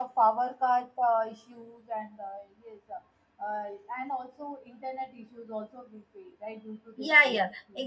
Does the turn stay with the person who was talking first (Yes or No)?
No